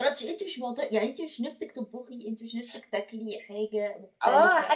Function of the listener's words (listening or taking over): taking over